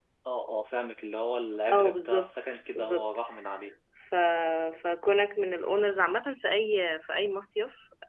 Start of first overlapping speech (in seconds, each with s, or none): 1.7 s